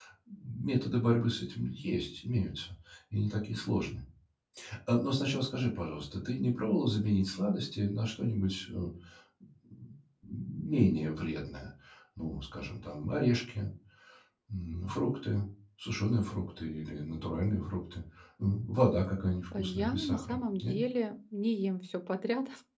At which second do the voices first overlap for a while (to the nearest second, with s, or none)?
20 s